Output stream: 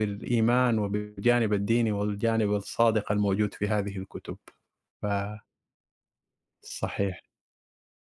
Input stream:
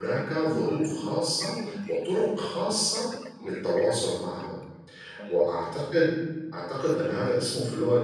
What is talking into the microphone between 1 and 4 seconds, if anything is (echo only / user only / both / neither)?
both